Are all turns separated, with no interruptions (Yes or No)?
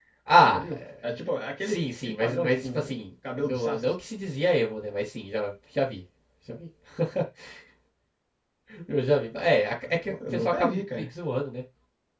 No